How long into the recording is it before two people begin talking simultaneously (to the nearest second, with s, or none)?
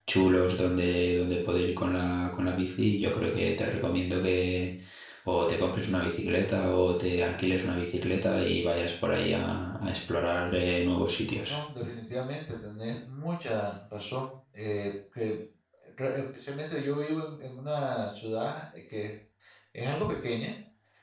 none